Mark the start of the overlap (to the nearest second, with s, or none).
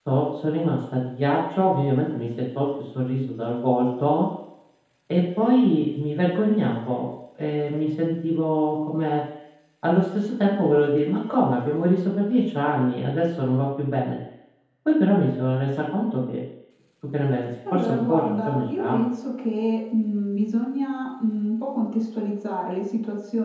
18 s